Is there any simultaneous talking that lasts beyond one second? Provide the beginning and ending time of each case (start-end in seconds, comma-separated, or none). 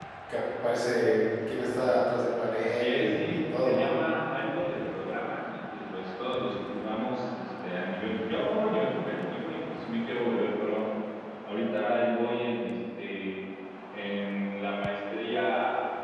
2.6-3.9